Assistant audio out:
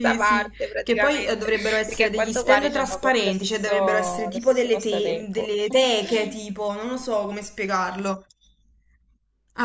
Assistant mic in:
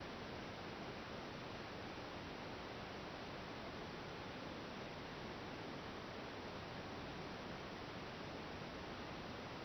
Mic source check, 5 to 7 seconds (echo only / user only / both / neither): neither